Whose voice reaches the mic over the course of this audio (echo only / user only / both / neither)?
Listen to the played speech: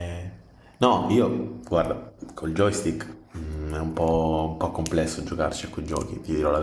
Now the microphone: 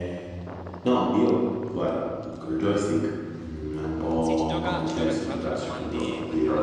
both